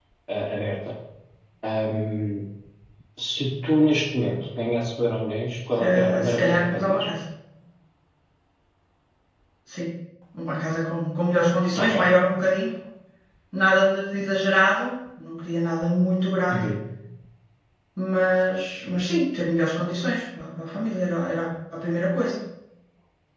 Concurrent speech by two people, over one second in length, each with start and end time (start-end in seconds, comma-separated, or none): 5.8-7.1